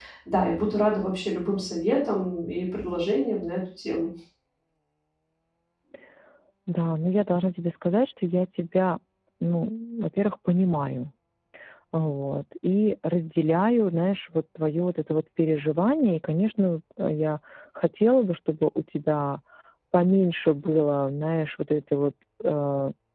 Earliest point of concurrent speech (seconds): none

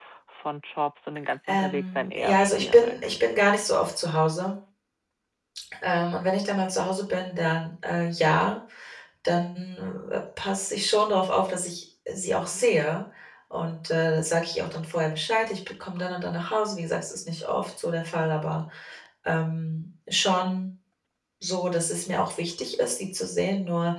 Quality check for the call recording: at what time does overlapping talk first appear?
1 s

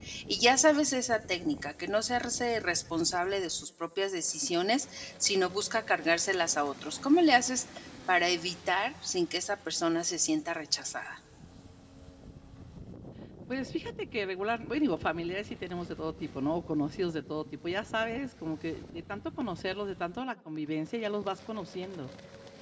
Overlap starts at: none

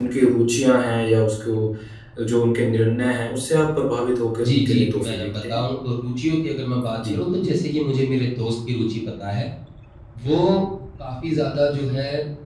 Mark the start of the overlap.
4 s

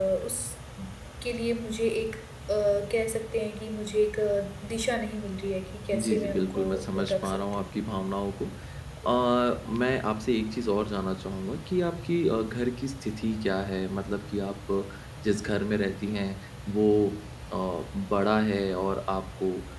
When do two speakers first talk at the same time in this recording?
6 s

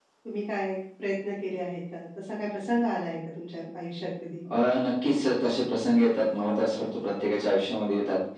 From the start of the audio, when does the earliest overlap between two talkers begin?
none

